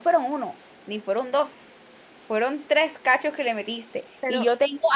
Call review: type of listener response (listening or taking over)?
listening